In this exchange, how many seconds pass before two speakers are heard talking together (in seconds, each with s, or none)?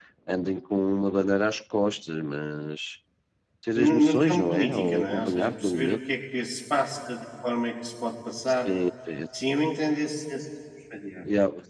3.7 s